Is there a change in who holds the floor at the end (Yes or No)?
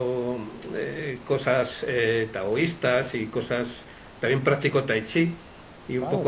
No